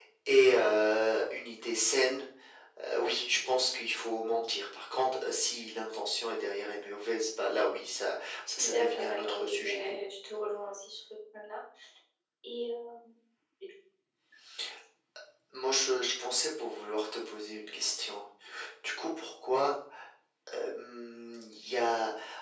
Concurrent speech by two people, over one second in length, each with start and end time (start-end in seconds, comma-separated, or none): 8.6-9.8